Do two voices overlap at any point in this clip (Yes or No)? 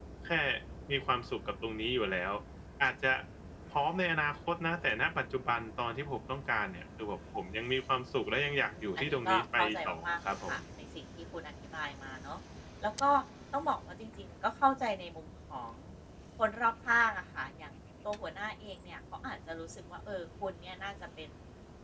Yes